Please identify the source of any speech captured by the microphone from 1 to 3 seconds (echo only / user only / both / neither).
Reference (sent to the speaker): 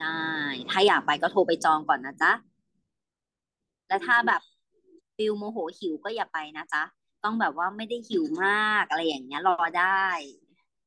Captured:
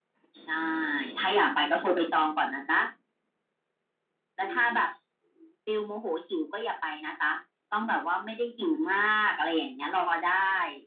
echo only